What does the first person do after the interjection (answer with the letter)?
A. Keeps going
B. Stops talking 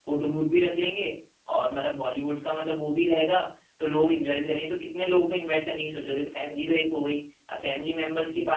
A